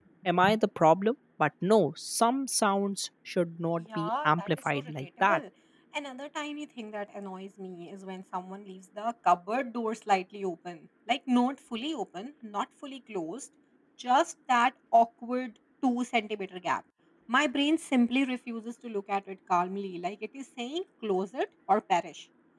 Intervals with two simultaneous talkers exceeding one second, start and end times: 3.8-5.4

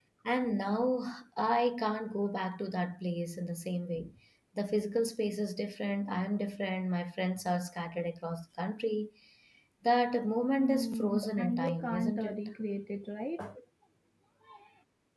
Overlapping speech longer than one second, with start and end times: 10.6-12.4

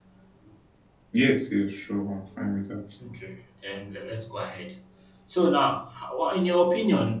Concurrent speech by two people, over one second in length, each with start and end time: none

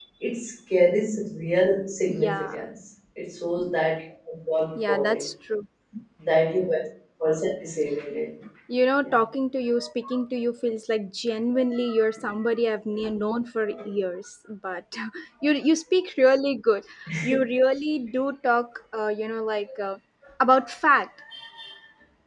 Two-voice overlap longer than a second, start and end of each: none

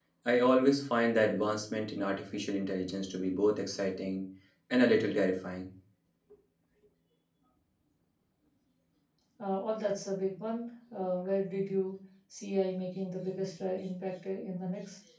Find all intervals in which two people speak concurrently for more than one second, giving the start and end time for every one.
none

